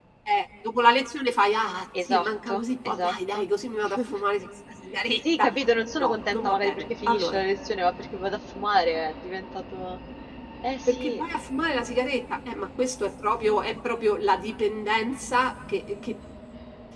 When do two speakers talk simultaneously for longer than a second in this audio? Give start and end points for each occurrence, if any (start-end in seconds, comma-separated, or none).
2.0-3.5, 6.0-7.4